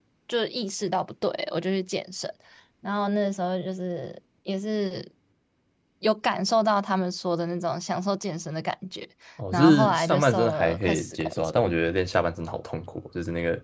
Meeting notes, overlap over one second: present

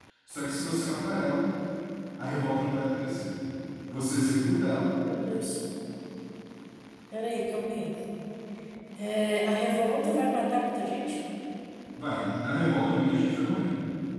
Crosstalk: none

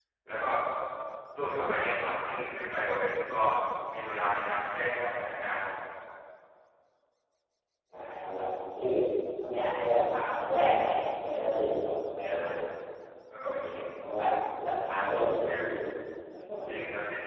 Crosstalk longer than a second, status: none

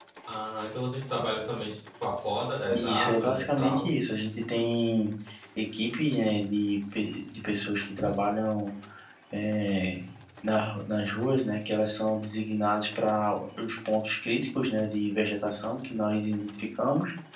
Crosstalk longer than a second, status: present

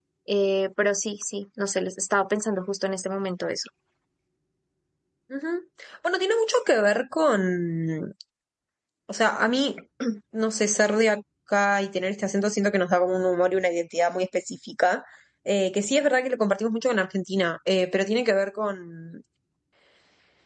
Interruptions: none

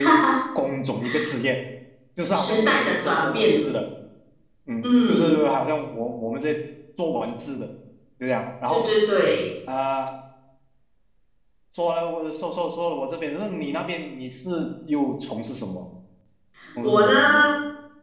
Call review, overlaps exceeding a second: present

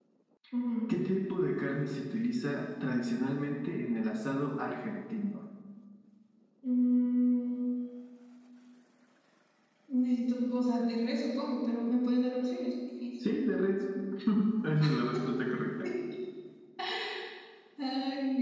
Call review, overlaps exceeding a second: none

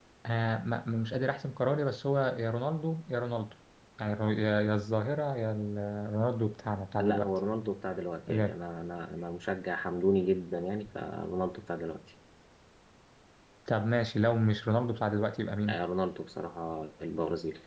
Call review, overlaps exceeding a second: none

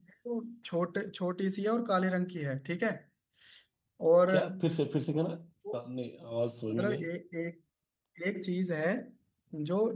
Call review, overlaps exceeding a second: none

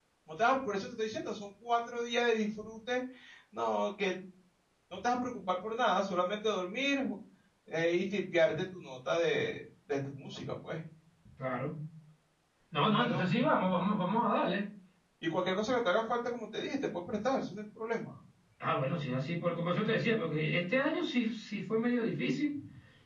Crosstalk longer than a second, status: none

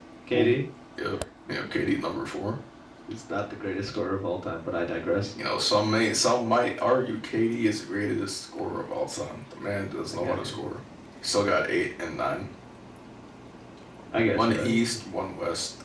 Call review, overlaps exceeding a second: none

